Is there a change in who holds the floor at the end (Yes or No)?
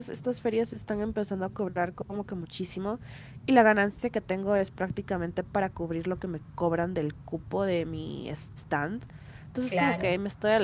No